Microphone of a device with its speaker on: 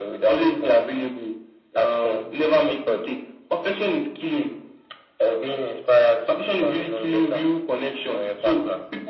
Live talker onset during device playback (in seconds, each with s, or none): none